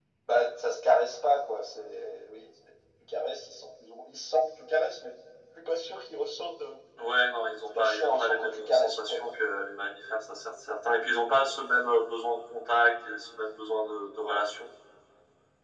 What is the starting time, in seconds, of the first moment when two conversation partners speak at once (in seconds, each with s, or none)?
7.8 s